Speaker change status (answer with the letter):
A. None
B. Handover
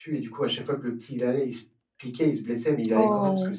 A